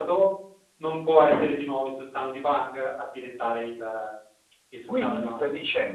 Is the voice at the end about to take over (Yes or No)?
Yes